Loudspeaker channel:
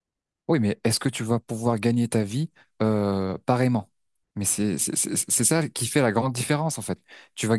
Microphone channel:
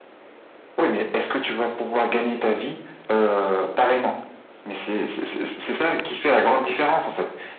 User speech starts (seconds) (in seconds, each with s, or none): none